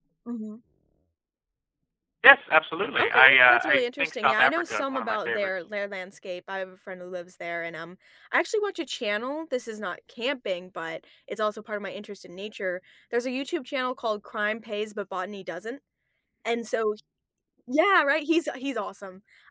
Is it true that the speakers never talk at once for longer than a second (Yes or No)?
No